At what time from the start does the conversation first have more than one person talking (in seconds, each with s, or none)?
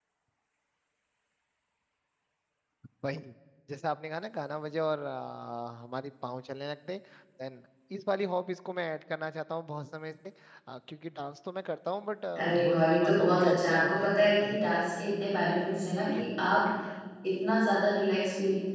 12.4 s